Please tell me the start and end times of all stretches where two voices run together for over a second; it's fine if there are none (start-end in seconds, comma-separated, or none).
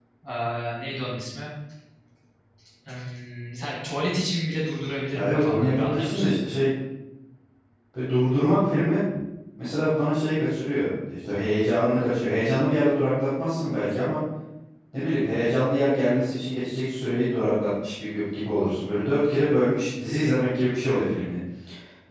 5.1-6.4